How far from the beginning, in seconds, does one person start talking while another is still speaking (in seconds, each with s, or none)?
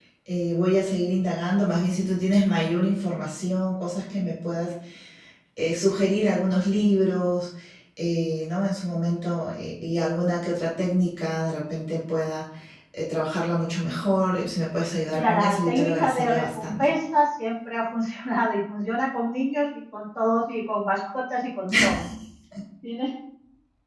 15.1 s